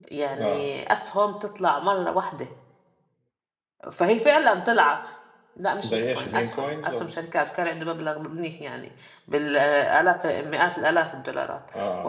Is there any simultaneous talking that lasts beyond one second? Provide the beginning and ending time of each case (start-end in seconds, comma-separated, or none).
5.8-7.1